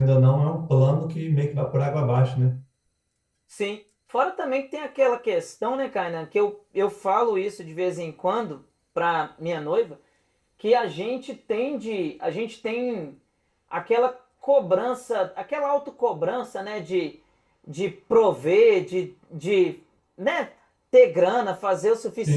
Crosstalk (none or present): none